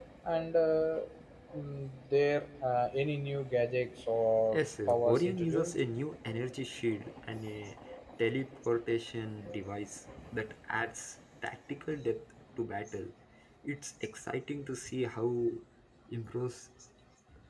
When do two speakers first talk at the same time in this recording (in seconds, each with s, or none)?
4.5 s